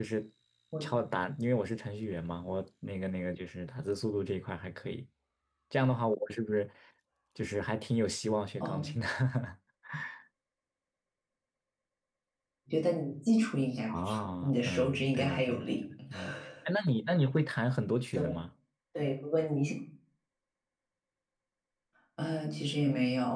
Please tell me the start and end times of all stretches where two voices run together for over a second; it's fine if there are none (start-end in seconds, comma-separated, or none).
13.9-15.6